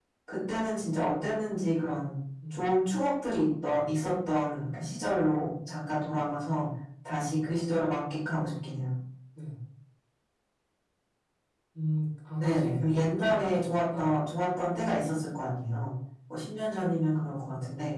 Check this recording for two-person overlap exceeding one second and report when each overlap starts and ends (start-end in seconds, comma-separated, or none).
12.4-14.1